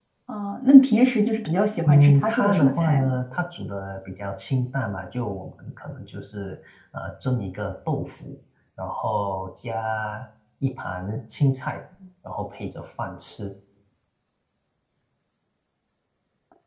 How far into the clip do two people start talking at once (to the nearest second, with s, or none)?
2 s